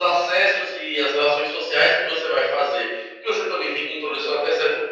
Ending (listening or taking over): listening